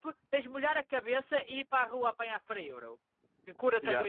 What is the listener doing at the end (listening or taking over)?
taking over